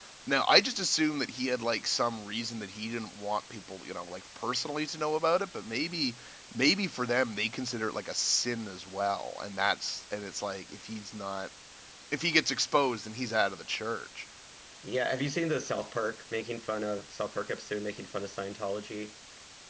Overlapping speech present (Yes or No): No